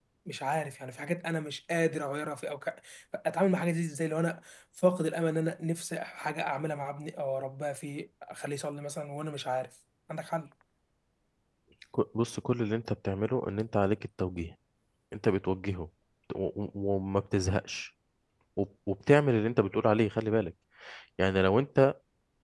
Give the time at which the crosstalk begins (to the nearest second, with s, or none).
none